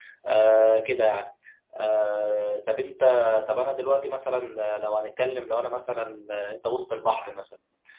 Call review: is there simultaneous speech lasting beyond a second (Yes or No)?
No